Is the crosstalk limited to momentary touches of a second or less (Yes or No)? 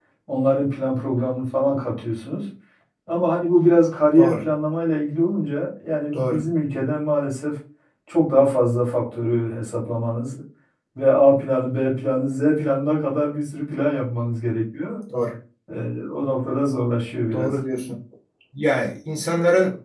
Yes